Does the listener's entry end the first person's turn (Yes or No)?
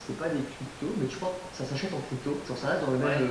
No